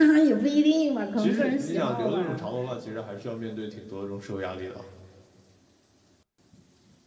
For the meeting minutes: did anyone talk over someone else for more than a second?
Yes, from 1.2 s

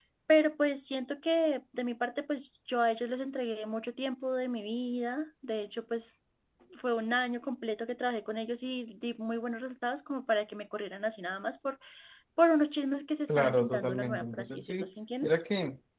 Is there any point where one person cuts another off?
Yes, from 13.3 s

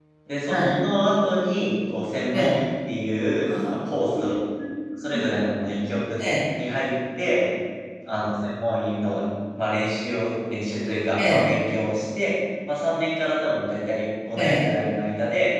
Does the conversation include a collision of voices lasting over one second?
No

